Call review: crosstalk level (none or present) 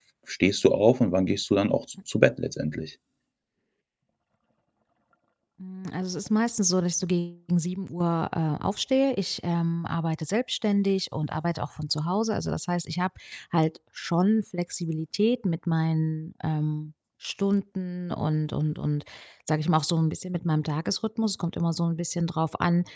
none